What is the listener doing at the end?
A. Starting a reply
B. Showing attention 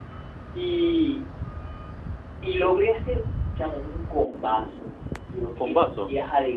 B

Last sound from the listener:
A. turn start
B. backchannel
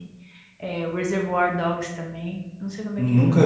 A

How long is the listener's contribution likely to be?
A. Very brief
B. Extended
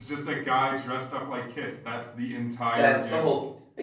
B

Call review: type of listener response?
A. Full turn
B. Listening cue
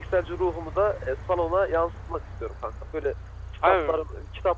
B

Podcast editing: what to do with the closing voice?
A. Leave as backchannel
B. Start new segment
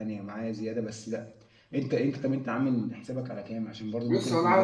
B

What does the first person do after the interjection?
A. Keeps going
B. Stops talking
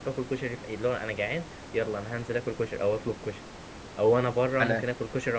A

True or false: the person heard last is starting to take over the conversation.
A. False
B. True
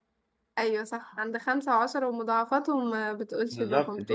B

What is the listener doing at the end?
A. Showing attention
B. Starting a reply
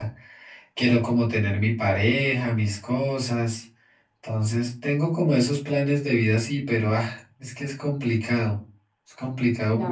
B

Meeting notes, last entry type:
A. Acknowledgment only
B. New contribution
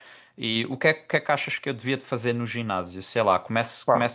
A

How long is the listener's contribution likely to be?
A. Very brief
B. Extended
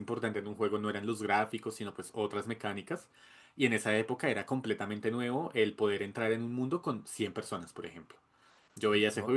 A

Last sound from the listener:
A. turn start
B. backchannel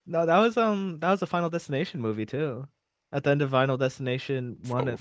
A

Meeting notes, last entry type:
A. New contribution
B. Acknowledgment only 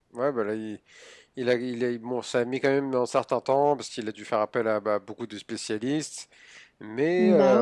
B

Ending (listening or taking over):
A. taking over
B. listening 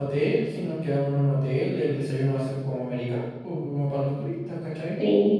B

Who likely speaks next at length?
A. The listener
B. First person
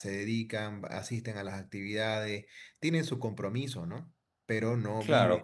A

